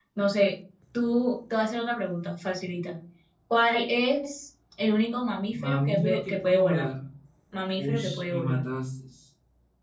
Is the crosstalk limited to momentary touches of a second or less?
No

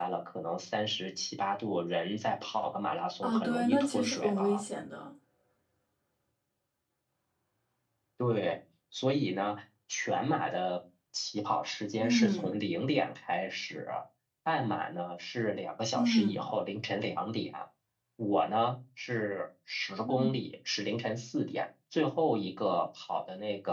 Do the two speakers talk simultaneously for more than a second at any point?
Yes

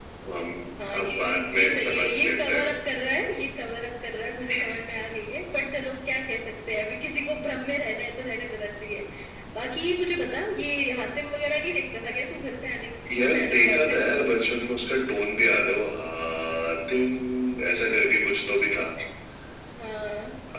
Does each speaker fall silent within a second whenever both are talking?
No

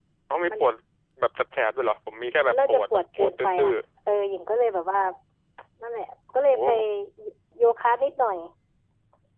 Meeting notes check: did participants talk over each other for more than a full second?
Yes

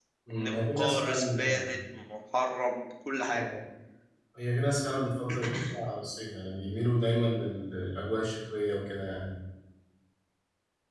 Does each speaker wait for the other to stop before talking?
No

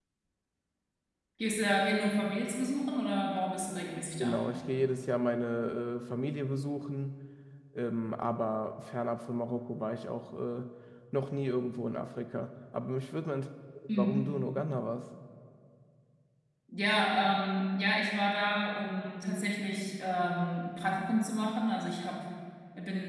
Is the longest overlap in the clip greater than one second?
No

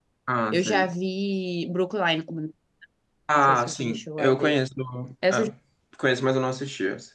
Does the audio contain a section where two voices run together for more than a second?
Yes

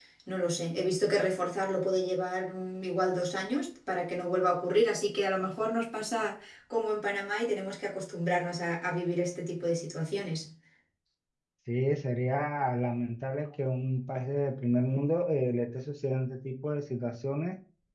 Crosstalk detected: No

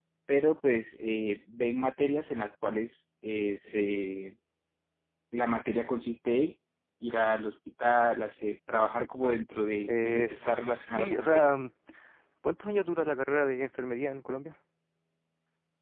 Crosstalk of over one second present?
Yes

